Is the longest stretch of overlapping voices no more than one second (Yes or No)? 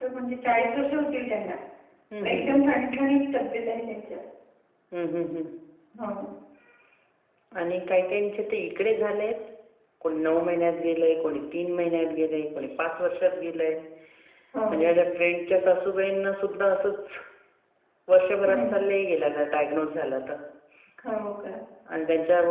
Yes